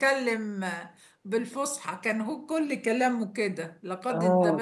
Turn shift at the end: Yes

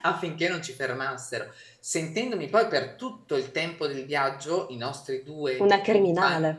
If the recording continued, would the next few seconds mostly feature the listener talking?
No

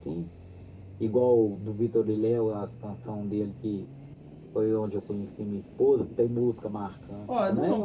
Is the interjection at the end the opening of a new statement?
Yes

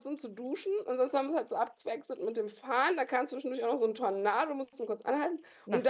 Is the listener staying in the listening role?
Yes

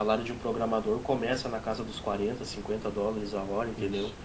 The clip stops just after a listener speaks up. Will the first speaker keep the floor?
Yes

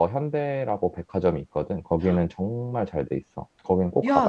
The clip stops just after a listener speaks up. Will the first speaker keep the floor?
No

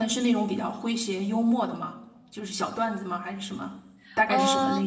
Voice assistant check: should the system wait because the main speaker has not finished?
No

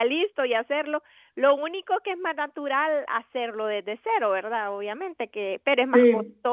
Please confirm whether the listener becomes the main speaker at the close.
No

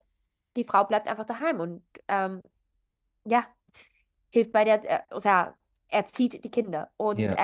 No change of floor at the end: Yes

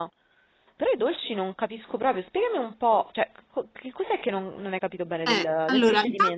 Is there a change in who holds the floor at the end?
Yes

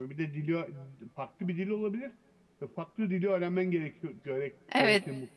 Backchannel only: No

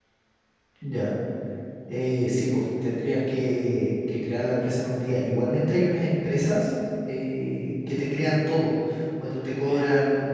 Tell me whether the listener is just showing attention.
Yes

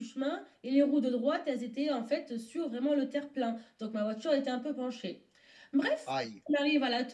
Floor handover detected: No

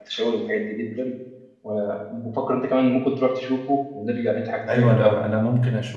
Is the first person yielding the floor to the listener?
Yes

